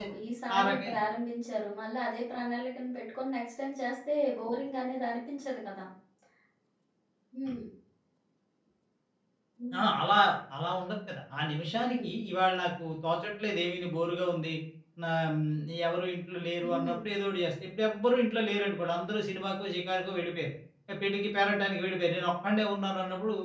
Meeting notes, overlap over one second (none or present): none